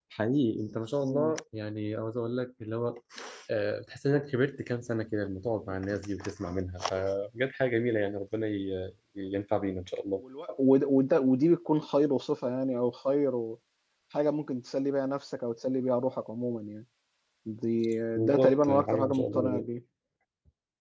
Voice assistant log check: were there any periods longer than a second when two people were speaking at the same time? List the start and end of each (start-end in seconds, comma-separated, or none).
18.2-19.7